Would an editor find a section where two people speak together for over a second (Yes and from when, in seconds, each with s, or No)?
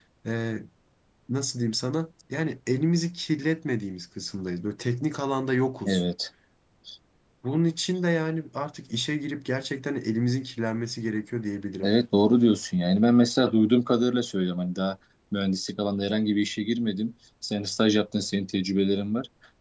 No